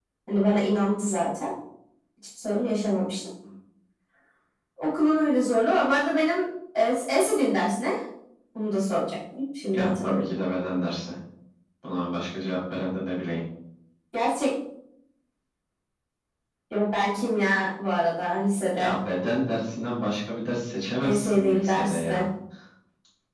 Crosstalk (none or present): present